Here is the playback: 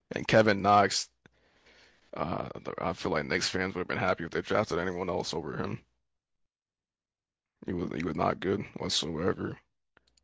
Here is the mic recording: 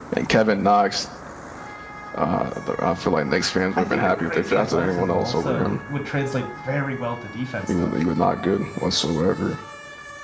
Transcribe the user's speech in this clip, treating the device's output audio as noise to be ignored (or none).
I think the crazy athleticism also would translate very well to defense, though.